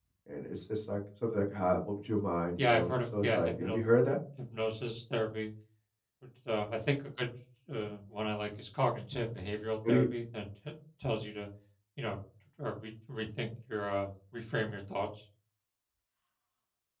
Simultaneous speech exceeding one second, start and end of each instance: 2.6-3.8

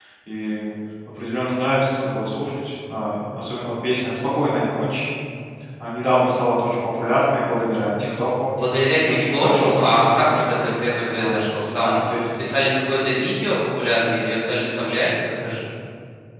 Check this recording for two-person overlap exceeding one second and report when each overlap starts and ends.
9.1-10.6, 11.2-12.4

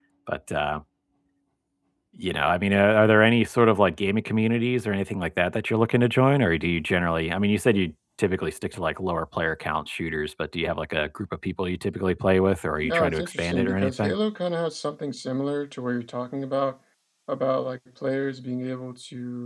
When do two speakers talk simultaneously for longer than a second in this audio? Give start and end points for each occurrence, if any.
12.8-14.2

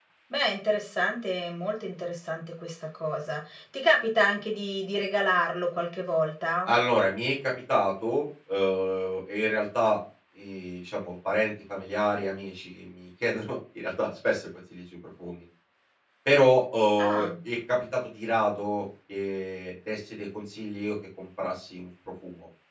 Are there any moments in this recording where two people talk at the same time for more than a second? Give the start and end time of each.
none

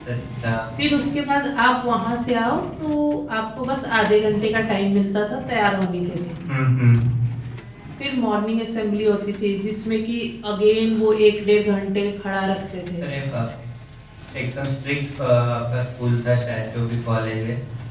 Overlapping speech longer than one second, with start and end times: none

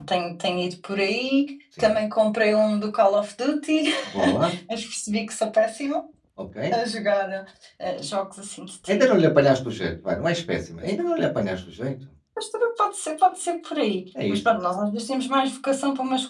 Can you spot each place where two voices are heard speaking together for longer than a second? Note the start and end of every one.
none

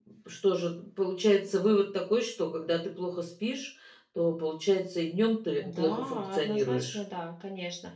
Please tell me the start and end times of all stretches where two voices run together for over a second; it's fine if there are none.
5.6-7.0

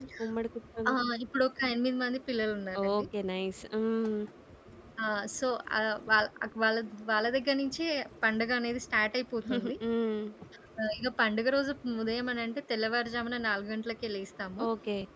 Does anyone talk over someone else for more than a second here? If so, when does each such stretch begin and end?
none

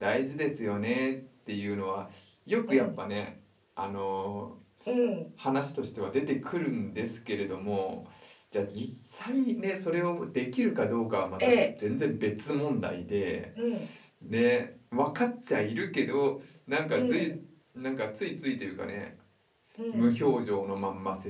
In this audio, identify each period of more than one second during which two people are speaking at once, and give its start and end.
none

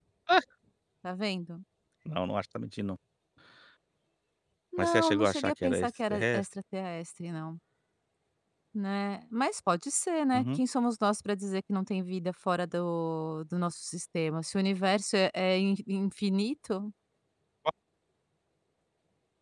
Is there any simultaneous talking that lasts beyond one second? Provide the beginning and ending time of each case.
4.8-6.5

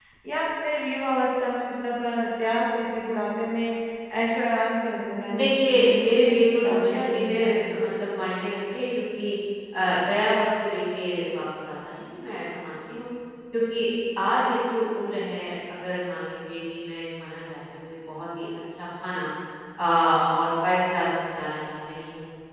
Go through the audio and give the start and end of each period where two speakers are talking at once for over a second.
5.3-7.7

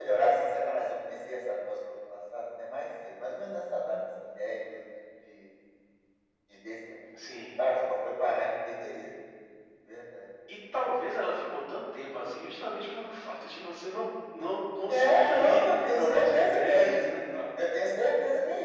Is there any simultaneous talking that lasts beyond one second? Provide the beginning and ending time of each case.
14.9-17.0

